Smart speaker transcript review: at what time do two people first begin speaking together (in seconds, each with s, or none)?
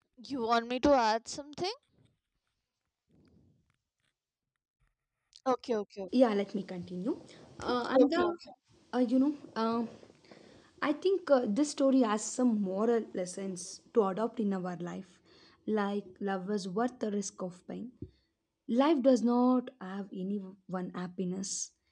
none